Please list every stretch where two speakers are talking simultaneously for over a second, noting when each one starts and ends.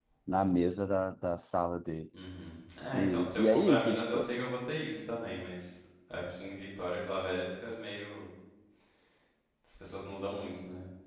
2.9-4.3

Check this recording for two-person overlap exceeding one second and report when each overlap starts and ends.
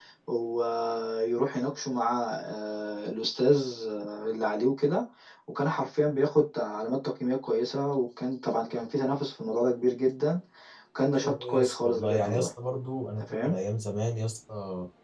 11.1-12.5

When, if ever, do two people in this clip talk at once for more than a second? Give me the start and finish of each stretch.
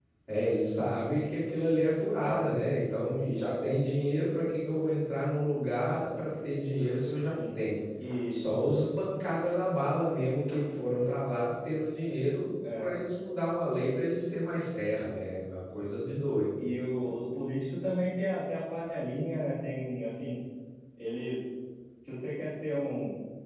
none

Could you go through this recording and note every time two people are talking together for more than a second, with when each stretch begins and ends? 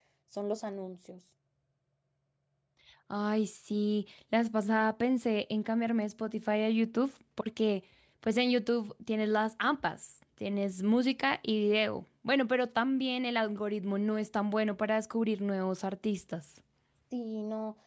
none

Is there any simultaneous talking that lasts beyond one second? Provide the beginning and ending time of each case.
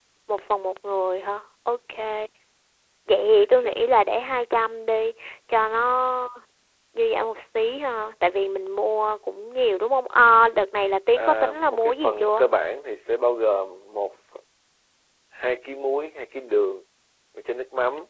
11.2-12.4

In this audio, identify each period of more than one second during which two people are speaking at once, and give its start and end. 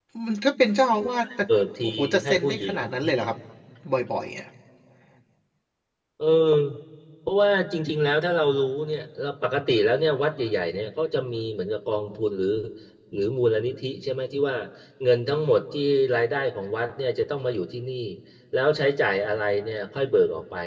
1.8-3.1

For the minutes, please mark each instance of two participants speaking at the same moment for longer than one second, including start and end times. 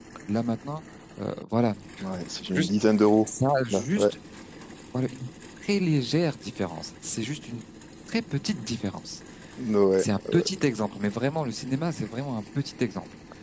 none

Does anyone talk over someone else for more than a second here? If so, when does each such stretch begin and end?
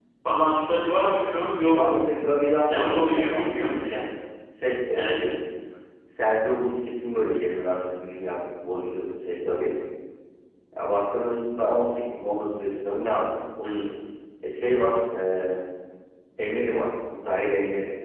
2.7-4.0

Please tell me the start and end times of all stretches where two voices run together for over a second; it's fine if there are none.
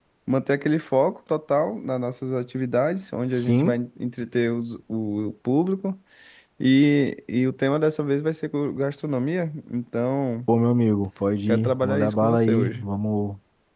11.5-12.8

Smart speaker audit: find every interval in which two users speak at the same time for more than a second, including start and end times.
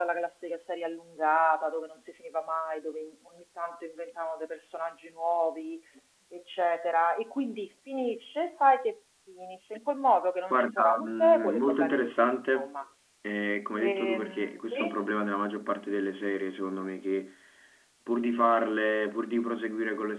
10.5-12.7, 13.8-15.0

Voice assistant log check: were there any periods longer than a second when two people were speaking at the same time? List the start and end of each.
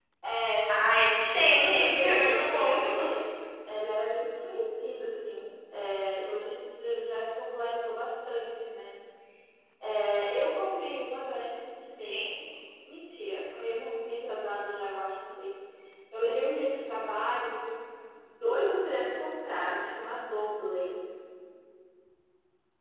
1.4-2.7

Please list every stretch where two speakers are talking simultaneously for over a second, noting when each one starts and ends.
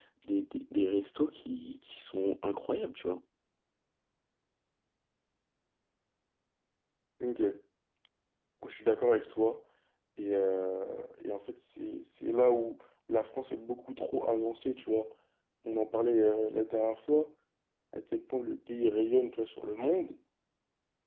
none

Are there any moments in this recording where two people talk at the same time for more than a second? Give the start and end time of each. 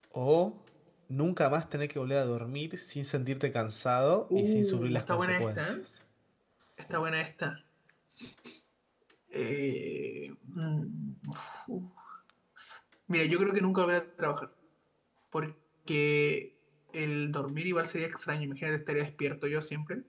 4.4-5.7

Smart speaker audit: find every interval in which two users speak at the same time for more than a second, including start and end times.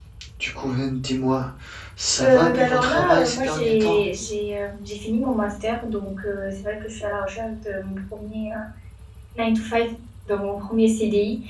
2.2-4.0

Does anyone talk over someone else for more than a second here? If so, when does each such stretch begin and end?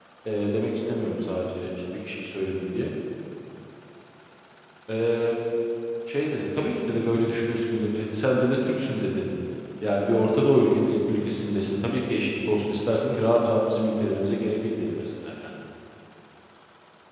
none

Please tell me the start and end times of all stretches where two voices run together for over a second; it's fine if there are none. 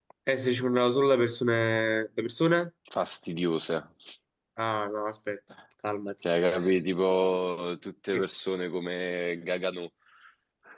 none

